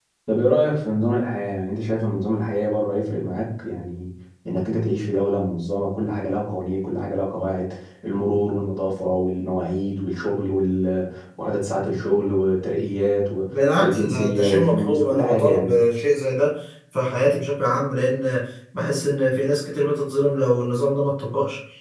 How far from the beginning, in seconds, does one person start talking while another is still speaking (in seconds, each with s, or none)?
13.8 s